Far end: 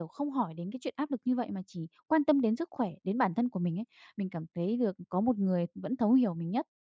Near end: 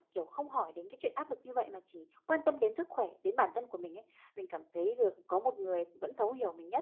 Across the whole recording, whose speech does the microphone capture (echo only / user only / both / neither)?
echo only